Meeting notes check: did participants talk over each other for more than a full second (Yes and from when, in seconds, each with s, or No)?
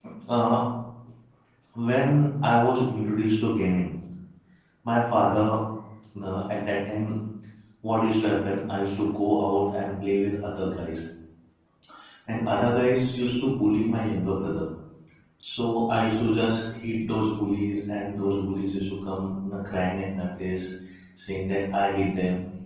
No